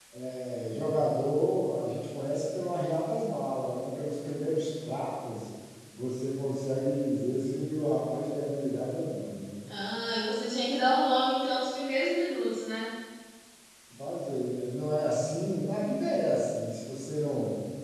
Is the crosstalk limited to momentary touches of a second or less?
Yes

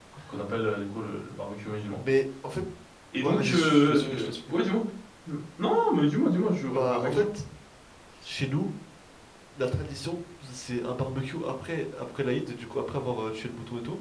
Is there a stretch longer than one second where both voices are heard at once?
Yes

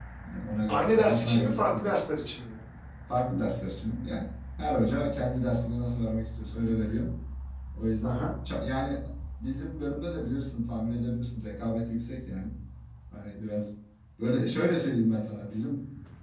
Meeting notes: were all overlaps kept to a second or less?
No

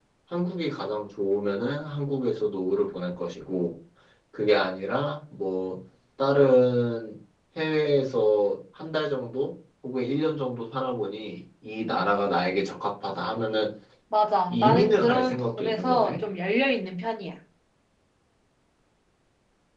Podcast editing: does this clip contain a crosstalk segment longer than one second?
Yes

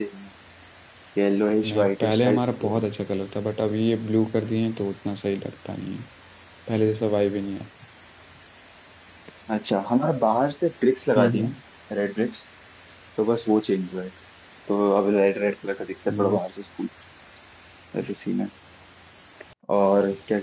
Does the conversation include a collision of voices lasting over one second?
Yes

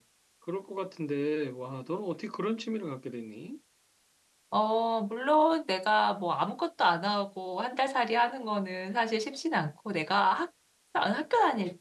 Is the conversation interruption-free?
Yes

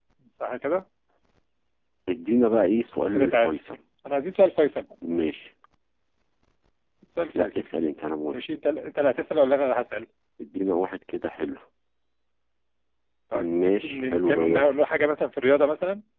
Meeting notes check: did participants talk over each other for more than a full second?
Yes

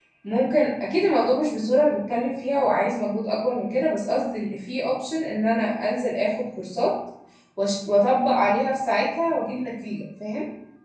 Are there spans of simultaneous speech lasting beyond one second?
No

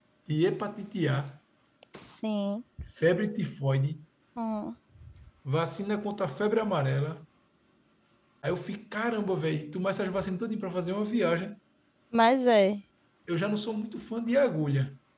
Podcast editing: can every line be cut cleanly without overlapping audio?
Yes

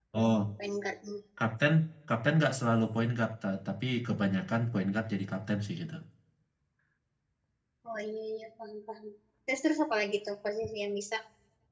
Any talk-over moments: No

